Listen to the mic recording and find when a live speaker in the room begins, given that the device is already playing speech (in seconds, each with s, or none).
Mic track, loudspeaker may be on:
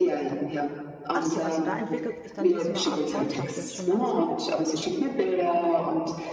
1.1 s